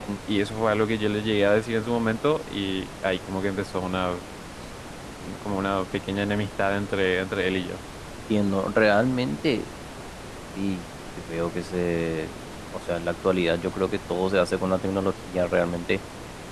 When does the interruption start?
none

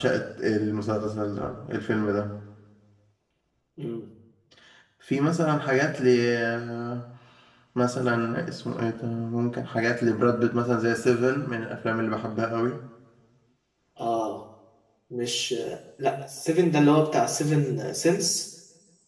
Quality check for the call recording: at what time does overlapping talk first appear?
none

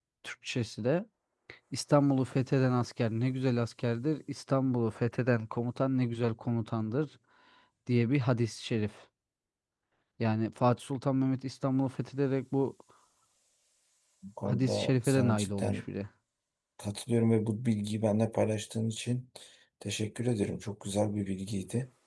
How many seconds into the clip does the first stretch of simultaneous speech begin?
14.4 s

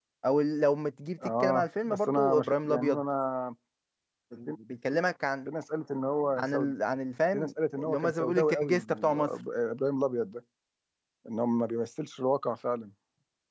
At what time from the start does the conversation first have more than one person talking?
1.2 s

